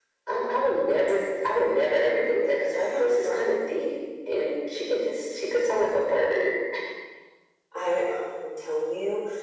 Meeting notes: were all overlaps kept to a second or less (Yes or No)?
No